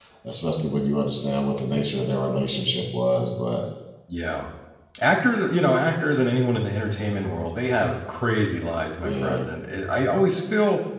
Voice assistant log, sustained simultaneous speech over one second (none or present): none